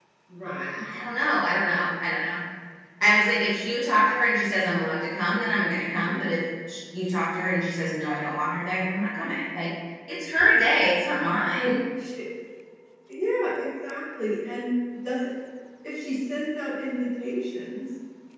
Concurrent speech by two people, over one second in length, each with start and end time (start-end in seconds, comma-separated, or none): none